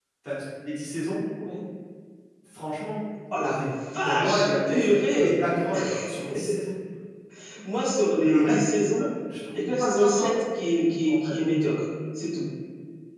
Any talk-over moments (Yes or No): Yes